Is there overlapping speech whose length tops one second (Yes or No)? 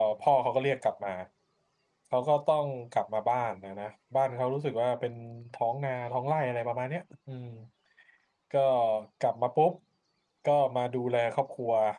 No